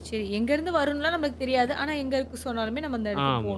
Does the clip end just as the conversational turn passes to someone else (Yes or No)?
Yes